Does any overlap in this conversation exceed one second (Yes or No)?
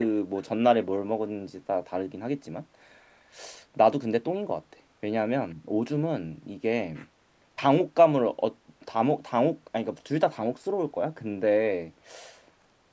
No